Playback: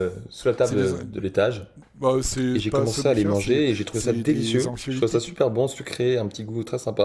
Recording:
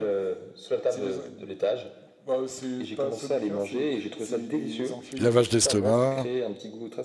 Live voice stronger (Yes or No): Yes